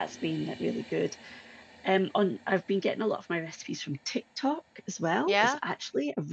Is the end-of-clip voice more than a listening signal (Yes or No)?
No